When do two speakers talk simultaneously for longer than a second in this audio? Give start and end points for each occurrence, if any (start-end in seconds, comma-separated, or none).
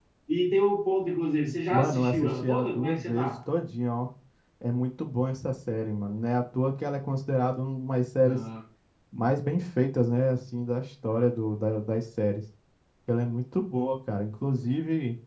1.7-3.3